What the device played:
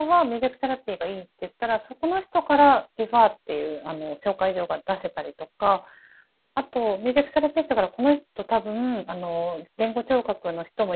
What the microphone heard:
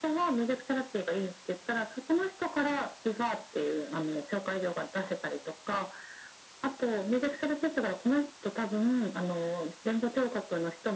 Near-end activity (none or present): none